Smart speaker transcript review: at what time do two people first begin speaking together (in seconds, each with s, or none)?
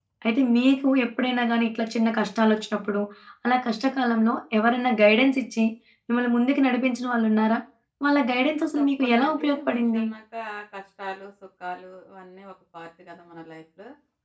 8.8 s